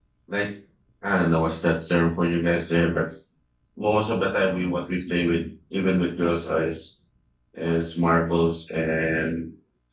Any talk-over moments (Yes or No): No